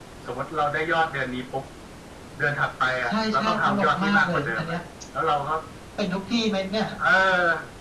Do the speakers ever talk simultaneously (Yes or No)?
Yes